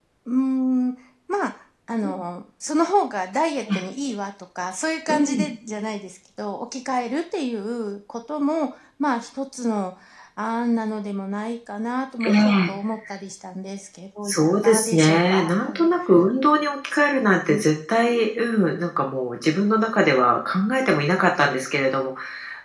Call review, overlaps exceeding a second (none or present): present